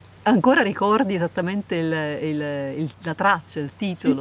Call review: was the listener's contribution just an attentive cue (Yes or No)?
No